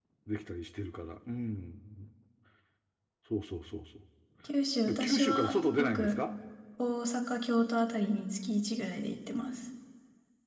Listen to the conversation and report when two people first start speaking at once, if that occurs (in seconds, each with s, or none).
4.9 s